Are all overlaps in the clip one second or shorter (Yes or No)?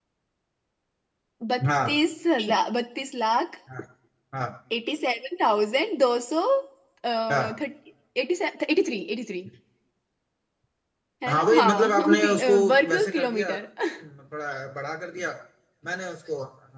No